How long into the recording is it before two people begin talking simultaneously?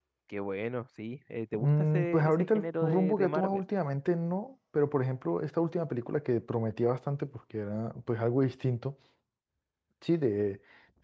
2 s

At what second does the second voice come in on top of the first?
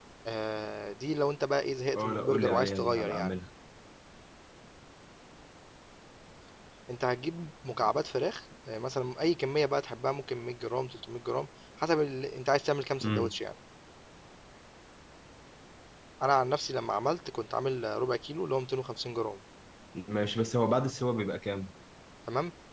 2 s

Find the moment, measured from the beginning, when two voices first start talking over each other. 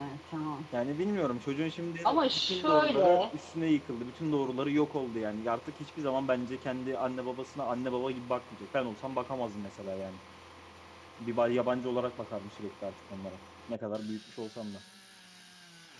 2 s

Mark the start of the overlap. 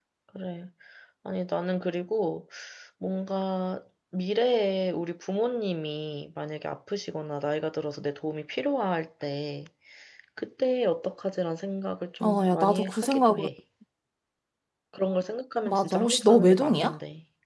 12 s

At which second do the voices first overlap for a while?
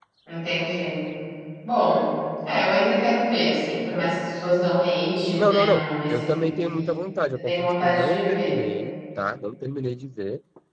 5 s

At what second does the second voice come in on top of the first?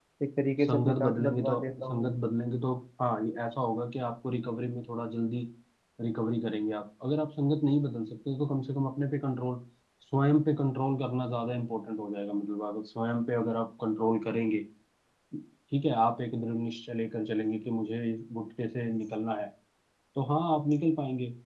1 s

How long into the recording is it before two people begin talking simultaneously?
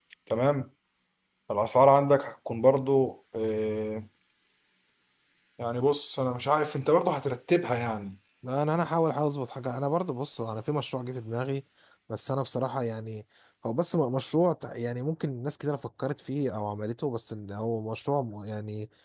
none

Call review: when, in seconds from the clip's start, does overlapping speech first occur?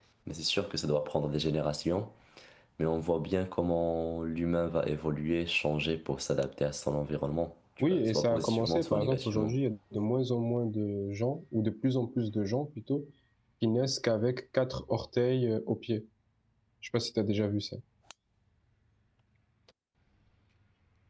8 s

